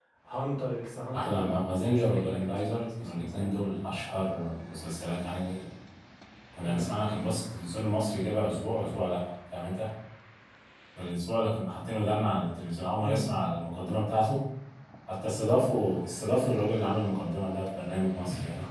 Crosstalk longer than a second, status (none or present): present